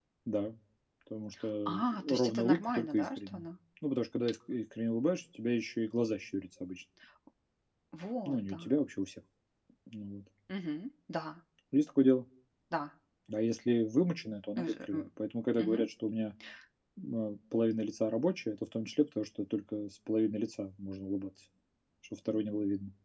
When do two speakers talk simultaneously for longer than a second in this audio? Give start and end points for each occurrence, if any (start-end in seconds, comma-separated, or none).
1.7-3.4